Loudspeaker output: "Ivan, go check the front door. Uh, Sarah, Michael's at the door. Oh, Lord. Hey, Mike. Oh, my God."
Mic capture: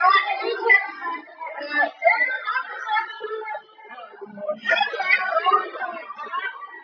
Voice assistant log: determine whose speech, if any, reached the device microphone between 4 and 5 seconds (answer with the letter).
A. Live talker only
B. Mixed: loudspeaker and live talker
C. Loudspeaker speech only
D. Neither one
C